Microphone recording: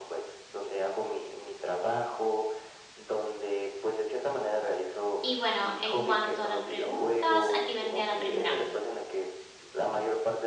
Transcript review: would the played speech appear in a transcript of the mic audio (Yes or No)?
Yes